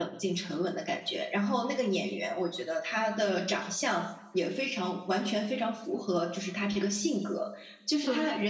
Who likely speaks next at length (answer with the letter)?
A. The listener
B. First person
B